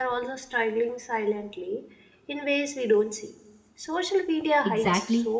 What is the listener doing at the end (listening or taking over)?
taking over